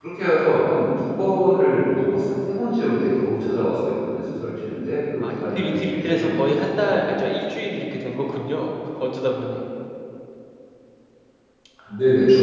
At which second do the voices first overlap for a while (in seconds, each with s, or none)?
5.2 s